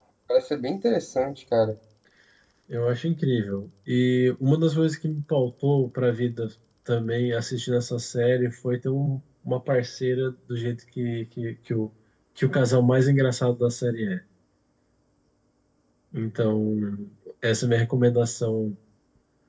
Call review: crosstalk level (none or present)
none